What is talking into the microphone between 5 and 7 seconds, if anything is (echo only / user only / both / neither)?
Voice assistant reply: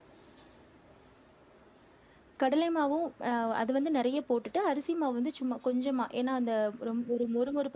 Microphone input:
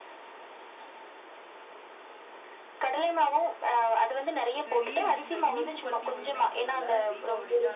both